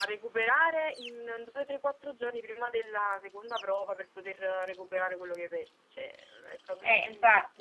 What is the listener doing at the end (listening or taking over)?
taking over